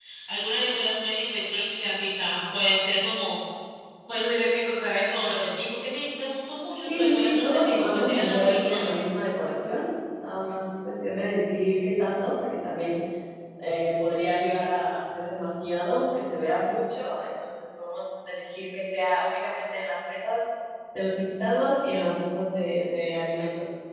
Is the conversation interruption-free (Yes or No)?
No